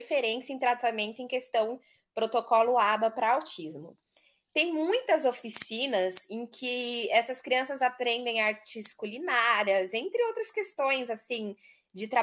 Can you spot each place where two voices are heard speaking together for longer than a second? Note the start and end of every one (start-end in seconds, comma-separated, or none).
none